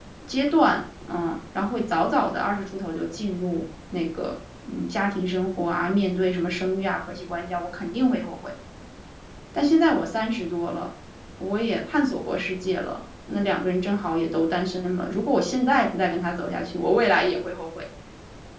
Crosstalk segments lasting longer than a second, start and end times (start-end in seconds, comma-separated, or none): none